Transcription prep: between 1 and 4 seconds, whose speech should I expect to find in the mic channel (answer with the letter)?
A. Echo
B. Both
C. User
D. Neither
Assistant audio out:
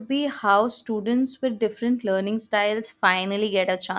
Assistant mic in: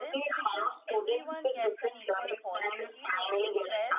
B